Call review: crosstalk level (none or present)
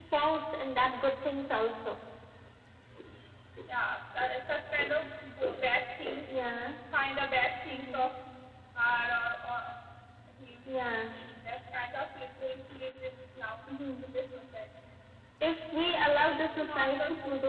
present